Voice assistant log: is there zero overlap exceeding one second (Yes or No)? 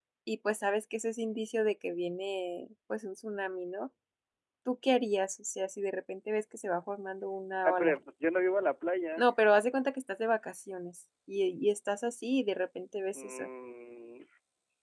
Yes